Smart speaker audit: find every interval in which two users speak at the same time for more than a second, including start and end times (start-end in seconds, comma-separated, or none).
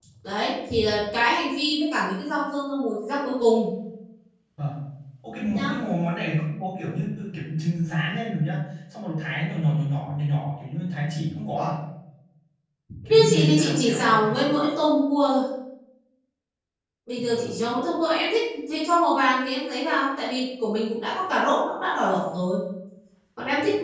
13.1-14.3